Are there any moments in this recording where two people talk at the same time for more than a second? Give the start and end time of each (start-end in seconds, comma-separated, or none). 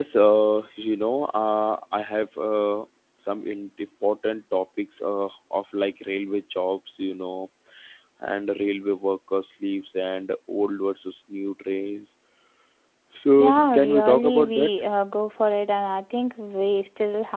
13.4-14.8